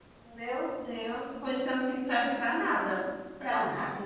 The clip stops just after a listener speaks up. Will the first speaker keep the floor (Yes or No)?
No